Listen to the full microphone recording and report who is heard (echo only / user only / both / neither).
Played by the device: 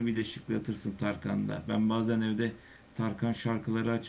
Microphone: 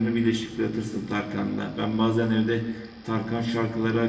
echo only